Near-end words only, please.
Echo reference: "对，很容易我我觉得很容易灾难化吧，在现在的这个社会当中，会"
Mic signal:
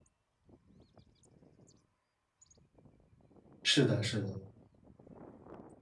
是的是的。

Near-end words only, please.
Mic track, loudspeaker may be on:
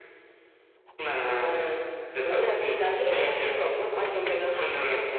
none

